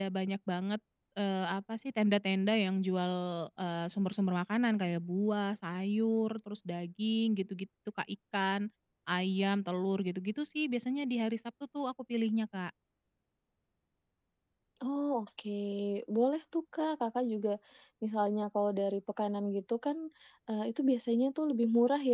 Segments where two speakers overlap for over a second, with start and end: none

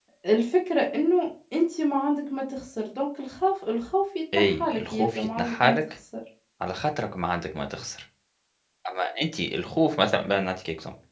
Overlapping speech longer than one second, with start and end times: 4.3-5.8

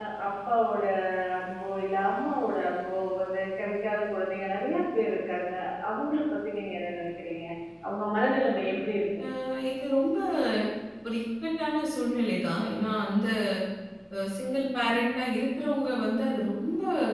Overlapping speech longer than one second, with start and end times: none

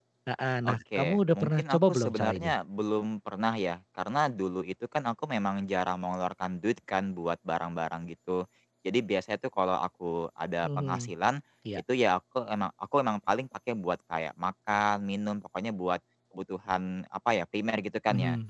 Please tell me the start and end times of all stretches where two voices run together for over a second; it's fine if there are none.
0.7-2.6

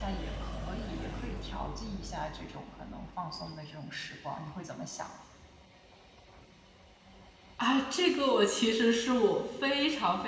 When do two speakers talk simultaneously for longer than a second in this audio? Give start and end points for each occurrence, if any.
none

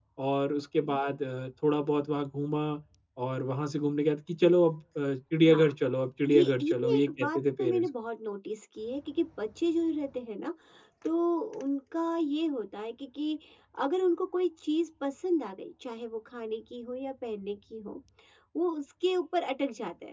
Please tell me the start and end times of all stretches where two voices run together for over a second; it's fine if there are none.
6.2-7.9

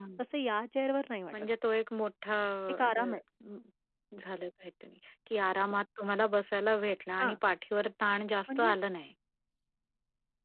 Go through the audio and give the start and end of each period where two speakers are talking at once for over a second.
none

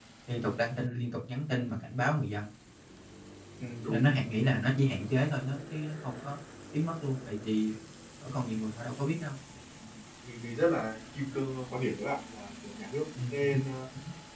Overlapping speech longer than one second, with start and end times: none

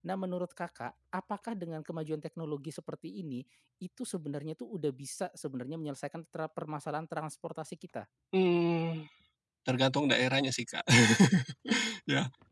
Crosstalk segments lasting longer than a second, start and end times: none

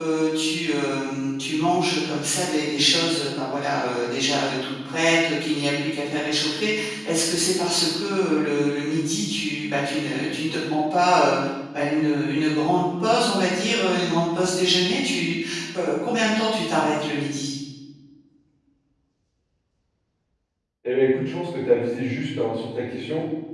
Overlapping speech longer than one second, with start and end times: none

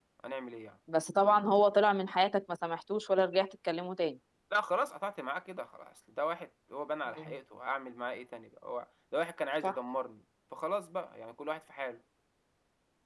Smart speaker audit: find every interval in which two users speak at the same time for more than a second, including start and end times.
none

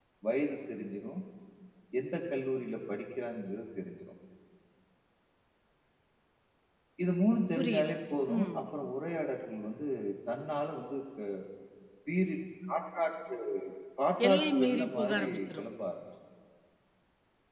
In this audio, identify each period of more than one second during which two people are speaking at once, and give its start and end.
14.3-15.6

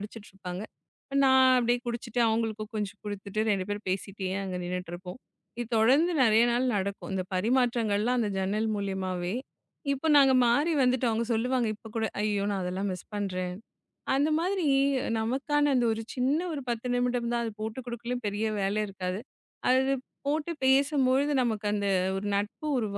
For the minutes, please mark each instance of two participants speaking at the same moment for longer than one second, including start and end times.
none

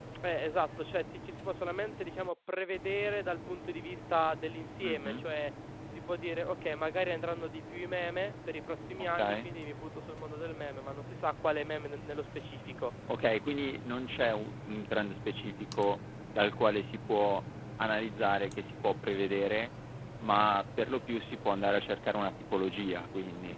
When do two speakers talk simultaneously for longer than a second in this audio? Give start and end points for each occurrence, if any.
none

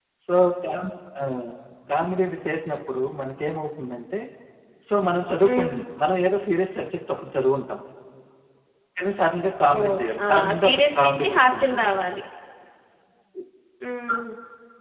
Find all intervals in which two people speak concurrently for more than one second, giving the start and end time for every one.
9.8-11.9

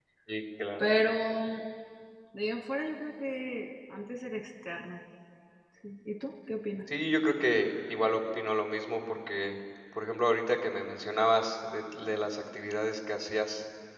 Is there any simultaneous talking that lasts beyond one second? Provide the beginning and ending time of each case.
none

